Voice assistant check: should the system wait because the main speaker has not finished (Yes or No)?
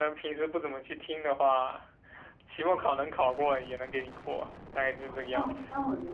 No